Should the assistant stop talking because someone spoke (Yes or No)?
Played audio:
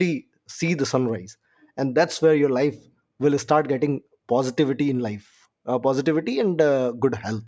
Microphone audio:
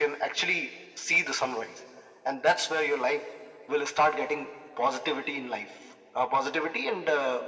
No